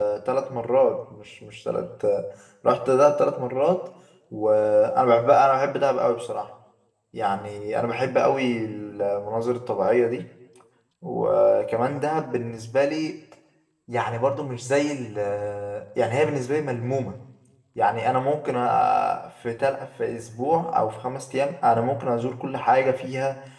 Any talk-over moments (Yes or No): No